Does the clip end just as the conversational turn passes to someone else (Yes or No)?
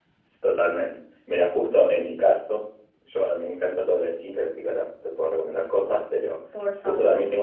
No